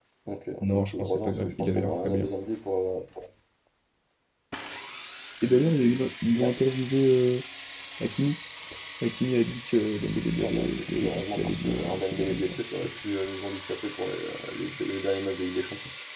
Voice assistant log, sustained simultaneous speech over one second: present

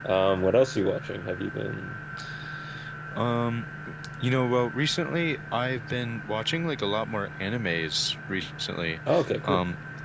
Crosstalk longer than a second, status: none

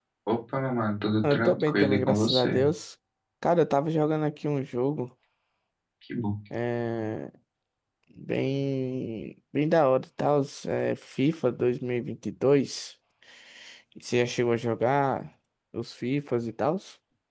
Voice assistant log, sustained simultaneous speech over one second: present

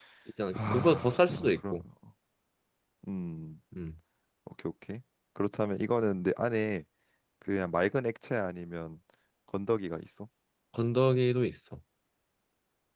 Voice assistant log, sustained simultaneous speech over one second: present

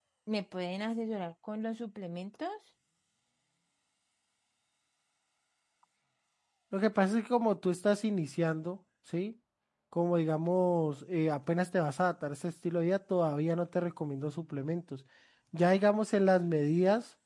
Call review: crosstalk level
none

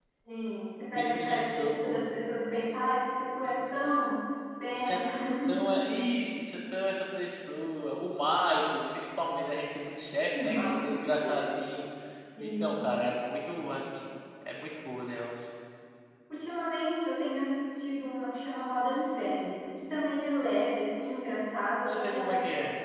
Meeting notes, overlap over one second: present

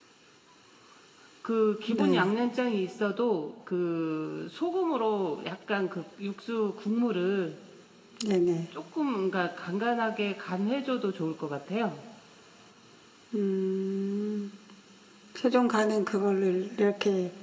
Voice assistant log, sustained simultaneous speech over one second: none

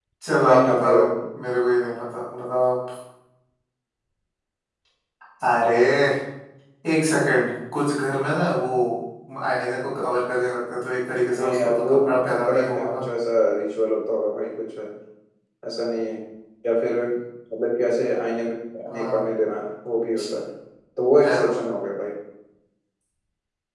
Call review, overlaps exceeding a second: present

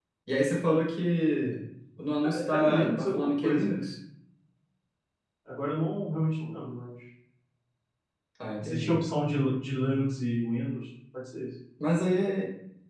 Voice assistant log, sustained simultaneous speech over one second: present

